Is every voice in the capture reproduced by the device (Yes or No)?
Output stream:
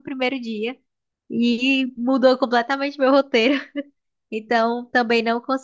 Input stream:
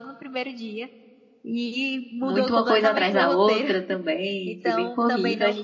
No